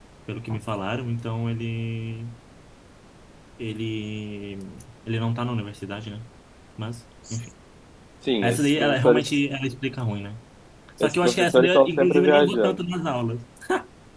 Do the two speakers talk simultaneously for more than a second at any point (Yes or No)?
Yes